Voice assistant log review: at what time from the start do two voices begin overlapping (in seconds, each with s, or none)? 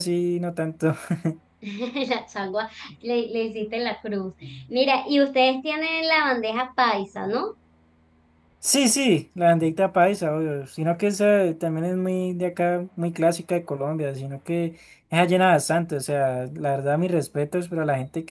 none